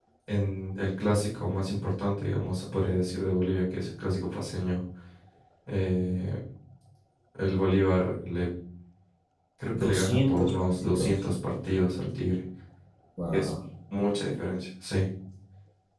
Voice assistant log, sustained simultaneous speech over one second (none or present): present